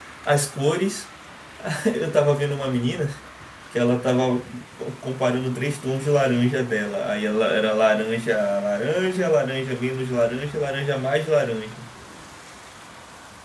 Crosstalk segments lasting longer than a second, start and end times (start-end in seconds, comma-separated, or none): none